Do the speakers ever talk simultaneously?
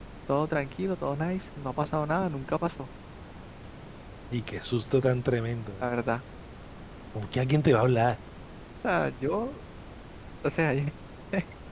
No

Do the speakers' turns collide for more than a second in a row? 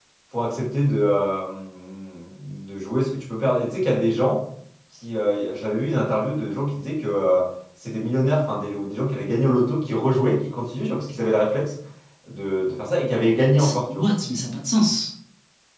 No

